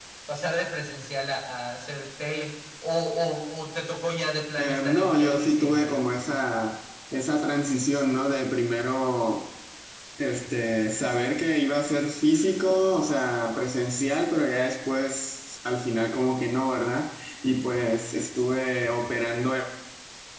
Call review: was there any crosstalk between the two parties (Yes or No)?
Yes